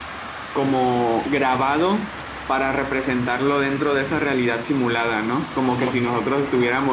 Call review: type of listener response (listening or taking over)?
listening